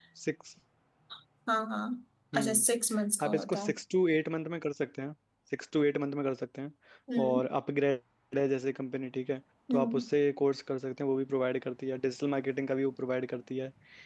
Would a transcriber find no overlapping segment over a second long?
Yes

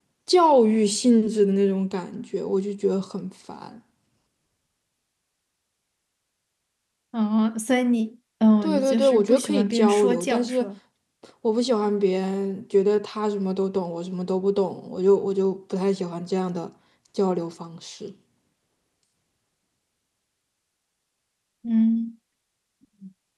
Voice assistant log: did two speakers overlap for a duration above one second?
Yes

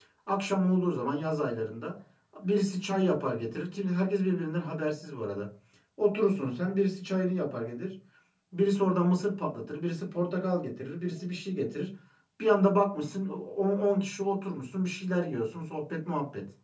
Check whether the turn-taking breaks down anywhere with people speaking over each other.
No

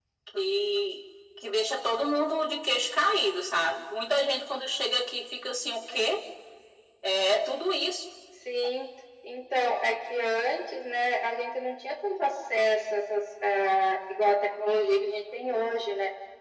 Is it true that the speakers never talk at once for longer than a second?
Yes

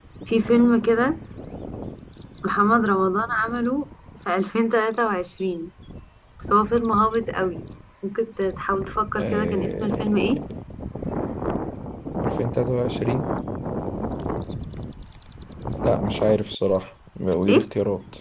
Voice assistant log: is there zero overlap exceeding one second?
No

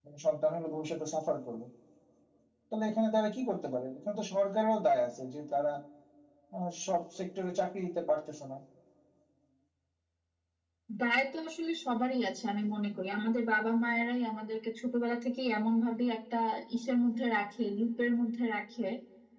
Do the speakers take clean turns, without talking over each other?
Yes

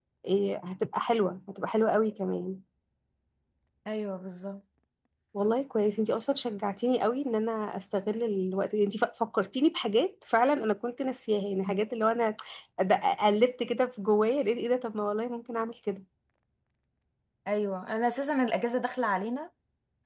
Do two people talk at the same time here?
No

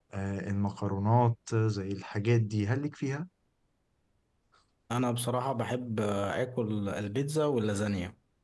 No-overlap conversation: Yes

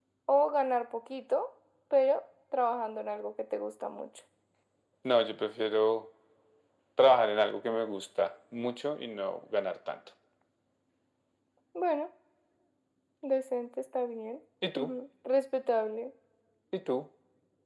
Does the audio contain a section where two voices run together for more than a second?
No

